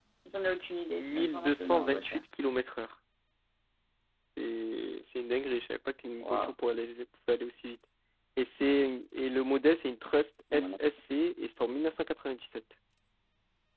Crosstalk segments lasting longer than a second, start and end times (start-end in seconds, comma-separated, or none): 1.0-2.2